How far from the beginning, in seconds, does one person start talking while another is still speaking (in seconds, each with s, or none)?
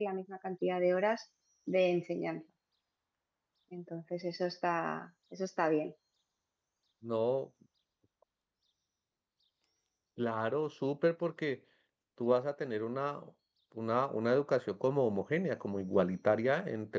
none